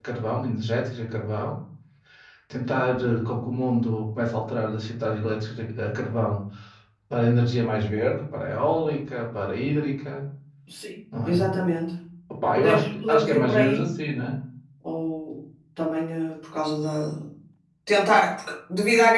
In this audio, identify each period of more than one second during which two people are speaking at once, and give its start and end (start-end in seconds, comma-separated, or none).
12.6-13.8